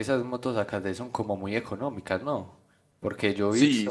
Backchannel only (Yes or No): No